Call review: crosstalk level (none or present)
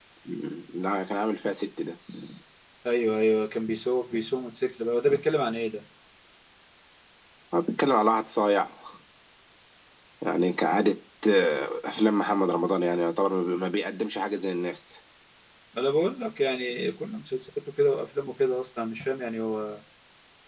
none